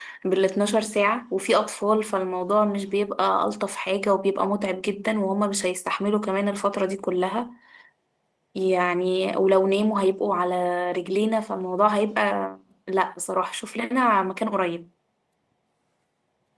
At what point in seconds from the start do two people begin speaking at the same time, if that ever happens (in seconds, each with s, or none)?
none